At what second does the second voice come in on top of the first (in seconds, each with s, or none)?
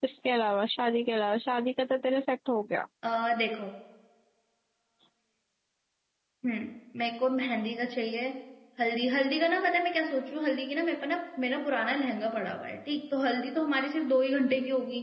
none